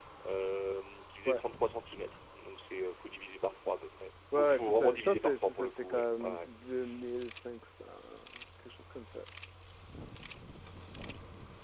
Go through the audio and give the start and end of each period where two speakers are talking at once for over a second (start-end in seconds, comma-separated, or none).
4.4-6.5